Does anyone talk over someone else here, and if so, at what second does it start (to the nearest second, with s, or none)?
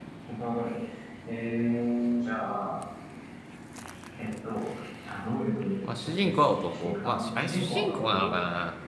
6 s